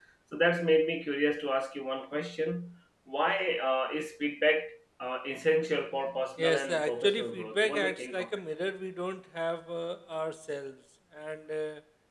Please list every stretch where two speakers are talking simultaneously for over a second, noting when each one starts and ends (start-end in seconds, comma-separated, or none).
6.4-8.4